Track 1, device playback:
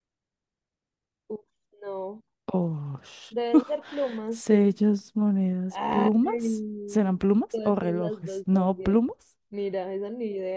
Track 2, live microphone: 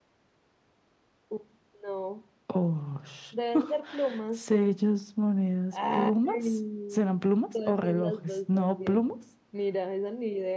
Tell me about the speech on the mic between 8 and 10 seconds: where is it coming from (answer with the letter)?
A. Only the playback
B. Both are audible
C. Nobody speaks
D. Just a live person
A